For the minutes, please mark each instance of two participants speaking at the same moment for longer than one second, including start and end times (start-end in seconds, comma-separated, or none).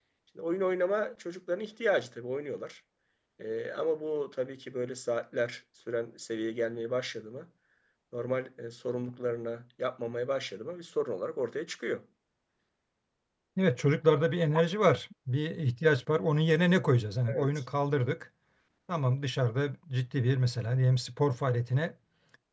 none